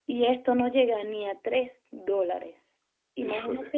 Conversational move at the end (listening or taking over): listening